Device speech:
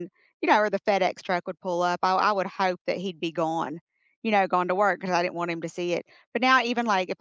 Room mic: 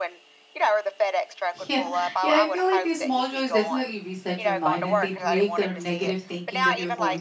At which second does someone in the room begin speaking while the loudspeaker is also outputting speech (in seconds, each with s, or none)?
1.7 s